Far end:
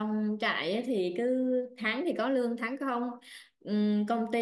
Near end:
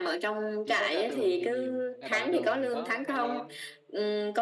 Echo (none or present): present